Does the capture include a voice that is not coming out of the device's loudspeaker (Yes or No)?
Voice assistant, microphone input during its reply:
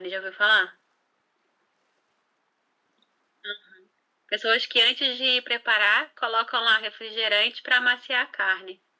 No